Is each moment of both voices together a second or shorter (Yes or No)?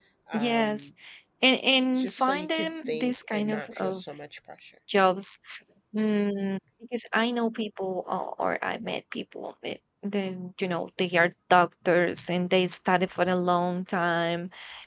No